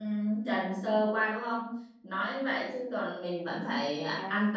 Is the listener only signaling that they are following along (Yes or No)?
No